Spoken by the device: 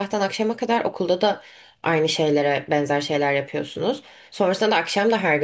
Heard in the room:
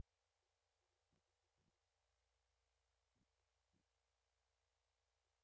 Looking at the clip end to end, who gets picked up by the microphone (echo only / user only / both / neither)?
neither